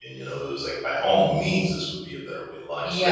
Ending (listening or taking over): taking over